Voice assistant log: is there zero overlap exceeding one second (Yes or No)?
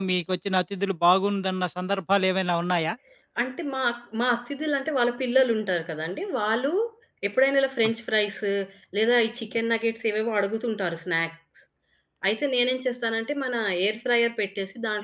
Yes